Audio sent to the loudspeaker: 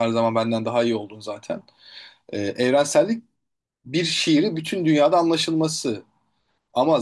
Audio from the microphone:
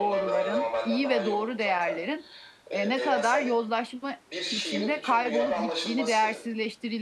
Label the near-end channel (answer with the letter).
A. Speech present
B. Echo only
A